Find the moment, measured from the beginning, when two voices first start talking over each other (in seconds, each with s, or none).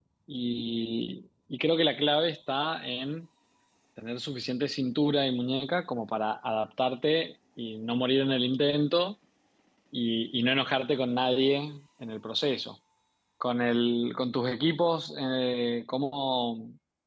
none